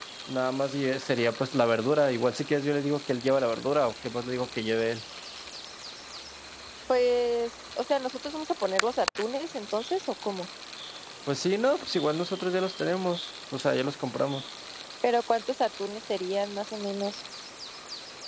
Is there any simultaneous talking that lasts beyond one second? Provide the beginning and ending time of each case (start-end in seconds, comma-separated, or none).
none